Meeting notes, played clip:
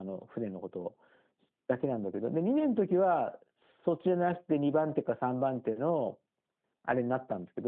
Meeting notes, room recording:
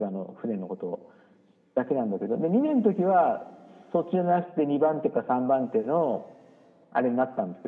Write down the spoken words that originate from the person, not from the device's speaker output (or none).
none